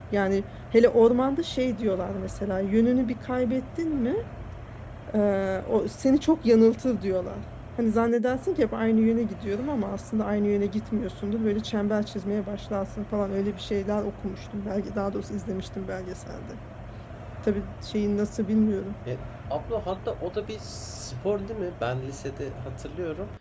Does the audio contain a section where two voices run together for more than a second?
No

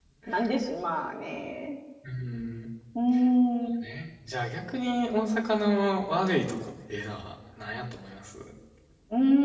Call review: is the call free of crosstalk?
Yes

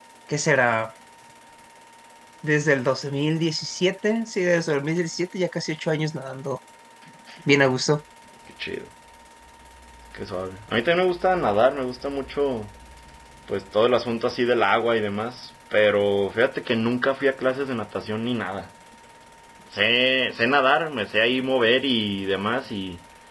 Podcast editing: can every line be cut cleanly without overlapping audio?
Yes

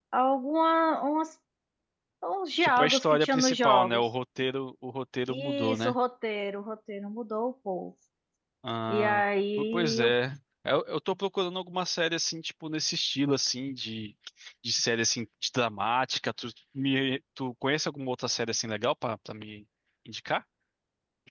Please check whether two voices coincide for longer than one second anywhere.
Yes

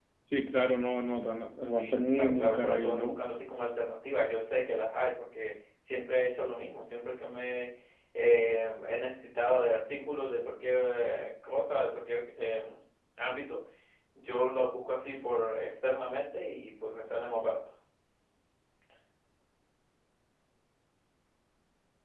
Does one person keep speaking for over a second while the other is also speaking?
Yes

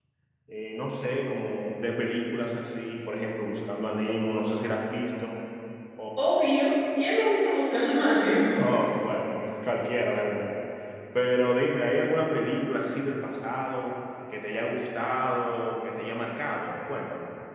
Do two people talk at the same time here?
No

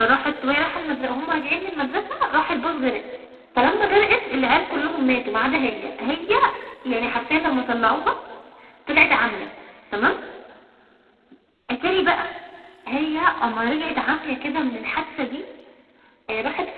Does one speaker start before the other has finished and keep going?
No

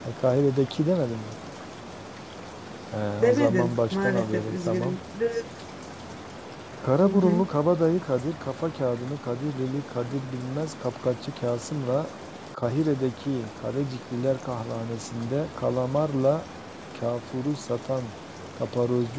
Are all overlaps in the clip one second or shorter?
No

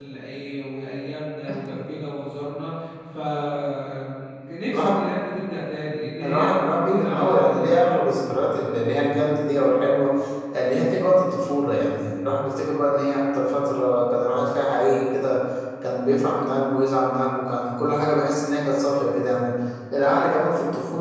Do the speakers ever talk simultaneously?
Yes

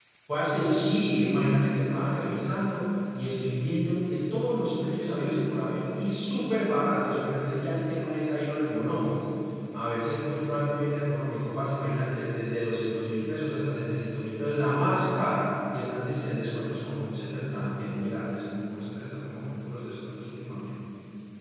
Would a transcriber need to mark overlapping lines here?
No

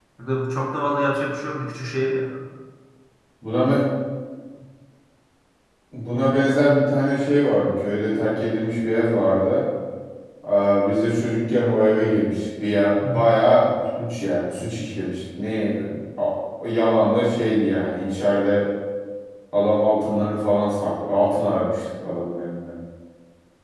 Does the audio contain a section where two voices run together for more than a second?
No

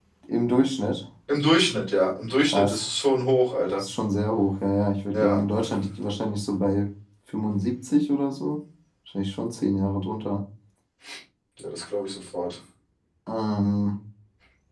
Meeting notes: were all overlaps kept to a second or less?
Yes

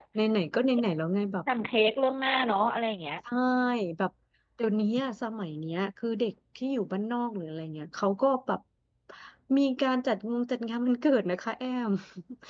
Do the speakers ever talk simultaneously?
No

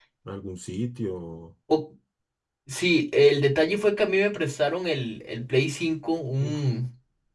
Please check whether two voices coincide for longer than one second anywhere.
No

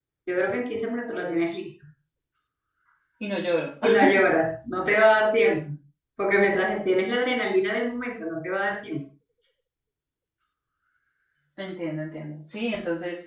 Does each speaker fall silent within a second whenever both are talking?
Yes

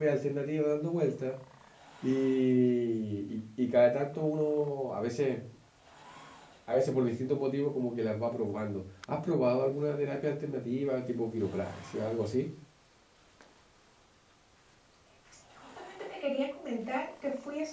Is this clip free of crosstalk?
Yes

